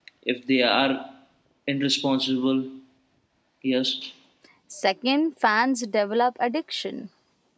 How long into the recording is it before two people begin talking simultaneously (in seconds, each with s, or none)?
none